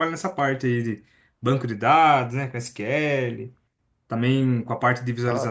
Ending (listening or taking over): listening